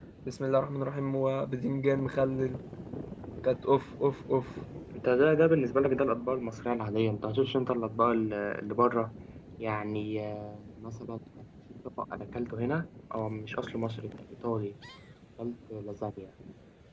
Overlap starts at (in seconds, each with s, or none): none